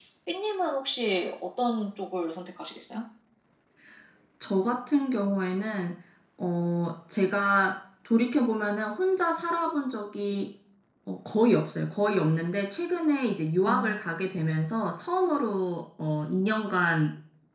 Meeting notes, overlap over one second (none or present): none